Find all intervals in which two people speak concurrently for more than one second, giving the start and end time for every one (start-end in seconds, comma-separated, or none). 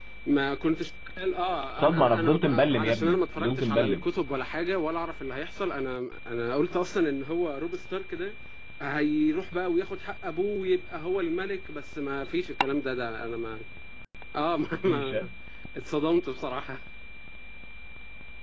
1.7-4.0